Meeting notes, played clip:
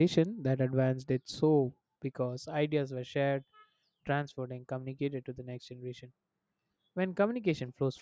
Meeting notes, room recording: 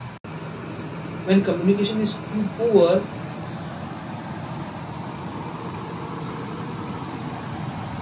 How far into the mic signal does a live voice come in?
1.2 s

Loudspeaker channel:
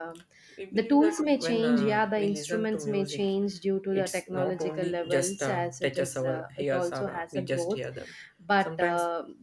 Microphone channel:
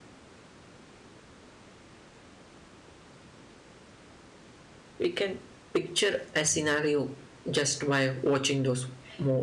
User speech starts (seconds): 5.0 s

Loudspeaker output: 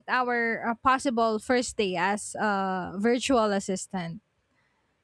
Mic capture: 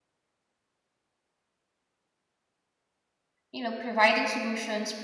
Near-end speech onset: 3.5 s

